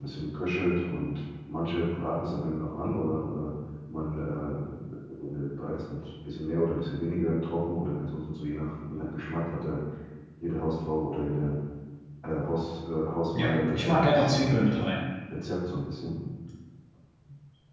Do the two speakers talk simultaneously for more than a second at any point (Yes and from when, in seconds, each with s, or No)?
Yes, from 13.3 s